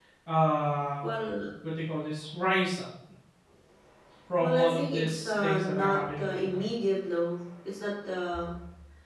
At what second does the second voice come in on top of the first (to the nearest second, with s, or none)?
4 s